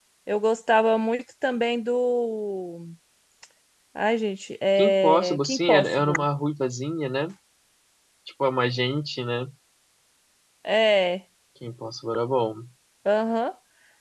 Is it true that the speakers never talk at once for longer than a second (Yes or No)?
No